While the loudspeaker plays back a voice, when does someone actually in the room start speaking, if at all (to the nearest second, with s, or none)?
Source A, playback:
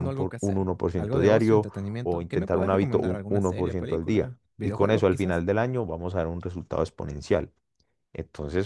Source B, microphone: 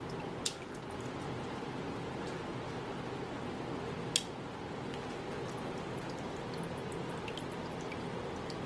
none